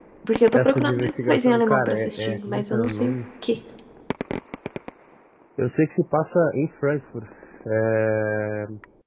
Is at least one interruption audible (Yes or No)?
Yes